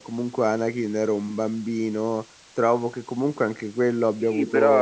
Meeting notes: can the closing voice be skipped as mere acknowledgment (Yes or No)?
No